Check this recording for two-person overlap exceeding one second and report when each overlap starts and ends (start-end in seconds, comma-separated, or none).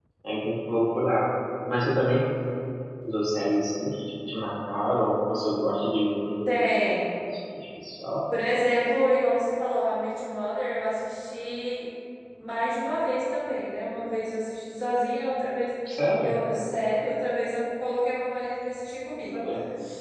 none